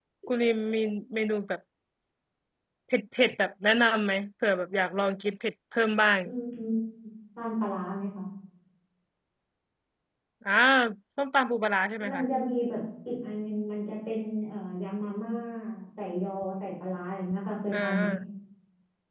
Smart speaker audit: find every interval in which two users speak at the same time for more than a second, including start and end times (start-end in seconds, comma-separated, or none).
none